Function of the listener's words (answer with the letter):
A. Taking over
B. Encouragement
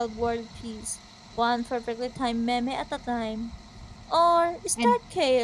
B